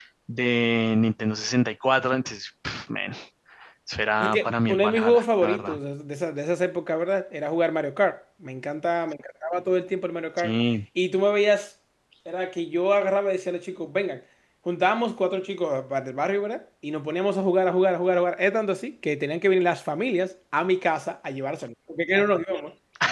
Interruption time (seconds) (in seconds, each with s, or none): 4.2 s